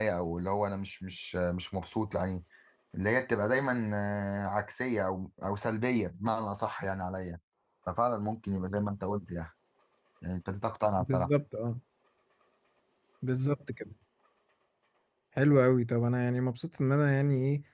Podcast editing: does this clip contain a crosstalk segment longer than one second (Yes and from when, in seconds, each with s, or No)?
No